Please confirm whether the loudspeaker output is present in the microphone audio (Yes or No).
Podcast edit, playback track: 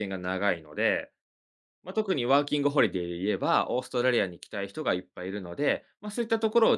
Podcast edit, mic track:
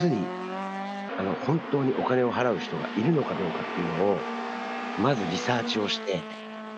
No